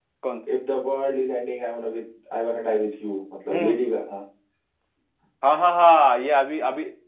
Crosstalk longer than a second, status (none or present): none